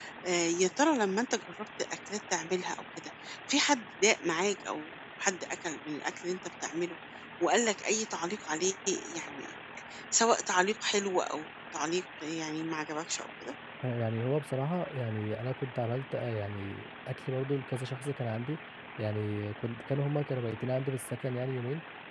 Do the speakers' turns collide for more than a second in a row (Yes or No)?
No